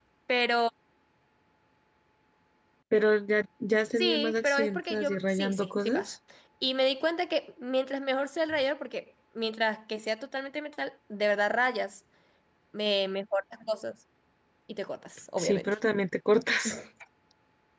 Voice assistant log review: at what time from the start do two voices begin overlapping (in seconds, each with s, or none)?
4.0 s